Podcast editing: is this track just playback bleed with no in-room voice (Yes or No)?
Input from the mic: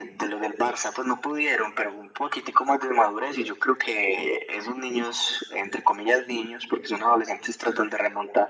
Yes